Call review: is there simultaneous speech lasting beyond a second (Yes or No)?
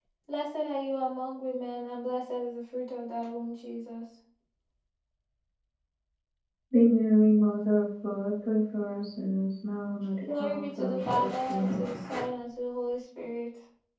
Yes